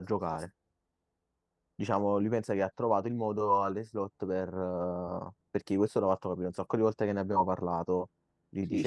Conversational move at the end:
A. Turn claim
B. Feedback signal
A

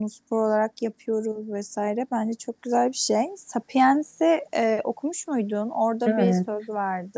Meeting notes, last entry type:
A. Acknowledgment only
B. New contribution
A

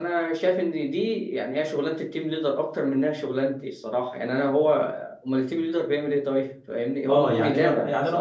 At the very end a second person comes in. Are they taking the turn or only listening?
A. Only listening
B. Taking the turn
B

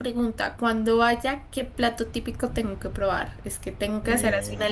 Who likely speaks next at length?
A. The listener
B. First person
B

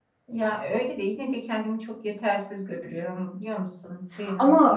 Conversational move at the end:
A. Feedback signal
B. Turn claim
B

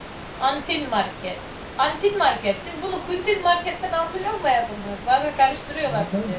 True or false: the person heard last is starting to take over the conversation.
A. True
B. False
A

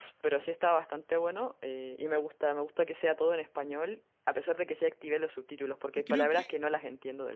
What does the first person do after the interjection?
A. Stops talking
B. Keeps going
B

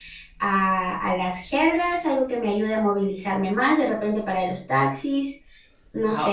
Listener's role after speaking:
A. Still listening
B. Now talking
B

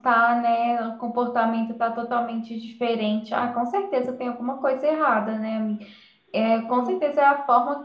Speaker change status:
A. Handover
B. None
B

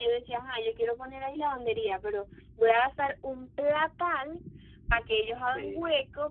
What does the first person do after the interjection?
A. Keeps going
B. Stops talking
A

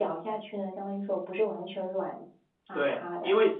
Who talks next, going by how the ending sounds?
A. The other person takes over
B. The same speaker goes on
A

